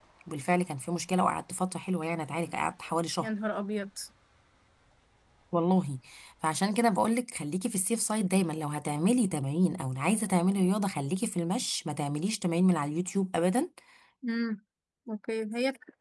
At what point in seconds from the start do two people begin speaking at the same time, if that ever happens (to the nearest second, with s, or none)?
none